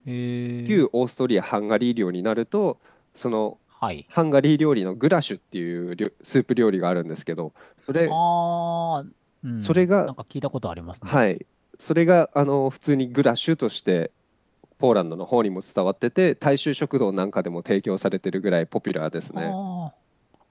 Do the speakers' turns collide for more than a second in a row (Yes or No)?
No